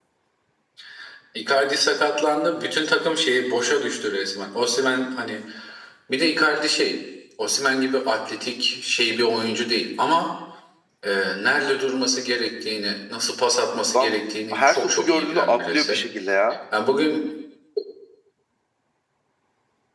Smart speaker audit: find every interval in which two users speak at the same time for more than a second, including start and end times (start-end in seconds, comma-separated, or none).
14.5-16.0